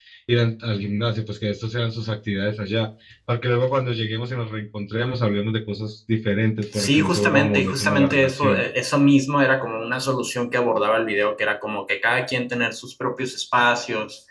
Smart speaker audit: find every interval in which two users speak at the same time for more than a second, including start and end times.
6.7-8.6

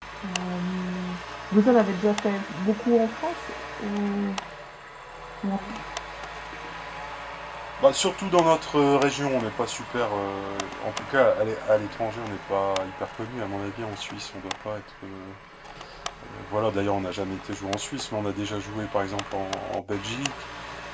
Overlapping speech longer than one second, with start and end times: none

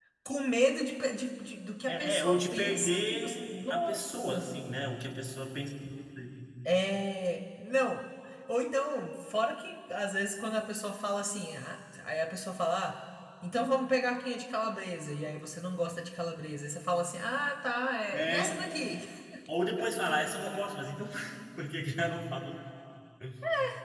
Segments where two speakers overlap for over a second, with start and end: 1.9-4.5

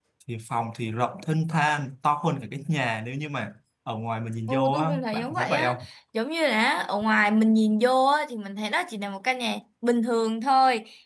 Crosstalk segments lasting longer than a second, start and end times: 4.5-5.7

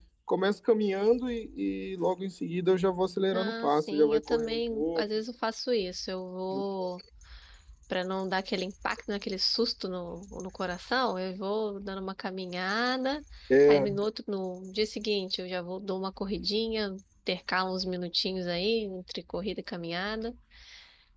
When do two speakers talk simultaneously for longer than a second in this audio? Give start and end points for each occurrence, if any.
3.3-5.0

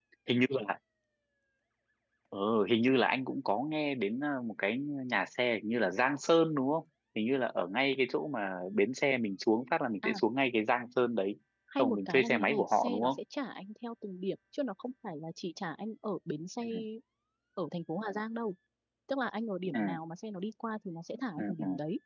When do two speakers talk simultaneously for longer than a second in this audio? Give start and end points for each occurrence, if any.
11.8-13.2

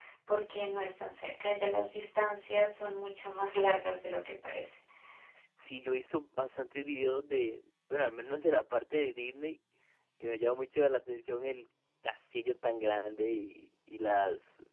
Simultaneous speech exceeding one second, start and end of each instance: none

